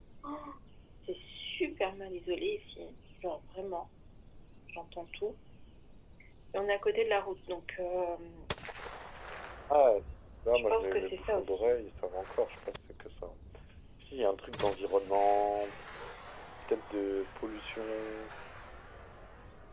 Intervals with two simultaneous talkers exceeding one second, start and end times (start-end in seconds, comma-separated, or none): 10.5-11.8